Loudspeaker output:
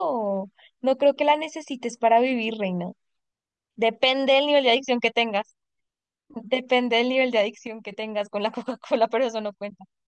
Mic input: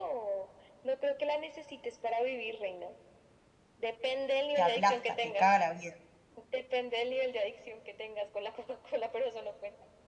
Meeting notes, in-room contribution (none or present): present